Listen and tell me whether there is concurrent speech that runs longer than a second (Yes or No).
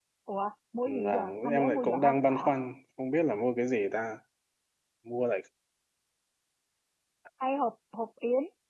Yes